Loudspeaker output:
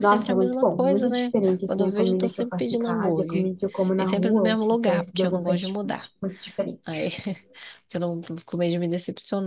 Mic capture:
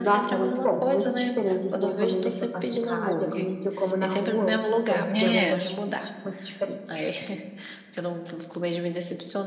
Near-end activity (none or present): present